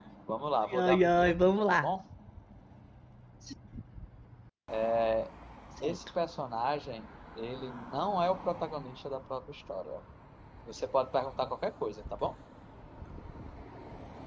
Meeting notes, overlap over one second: present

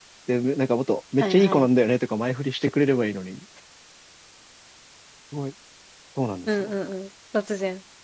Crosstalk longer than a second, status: none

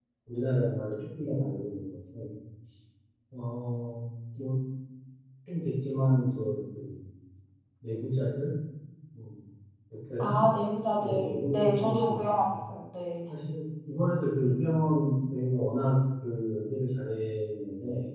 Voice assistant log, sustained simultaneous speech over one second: present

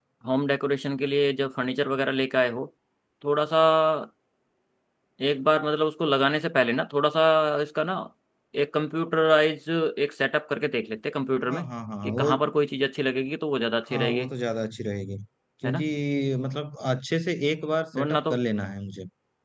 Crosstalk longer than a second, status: none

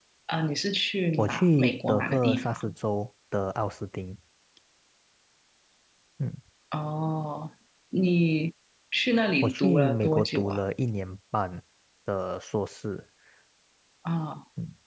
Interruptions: present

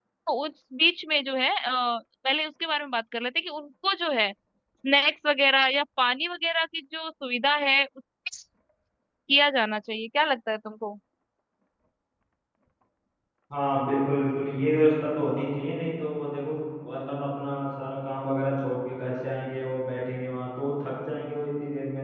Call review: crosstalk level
none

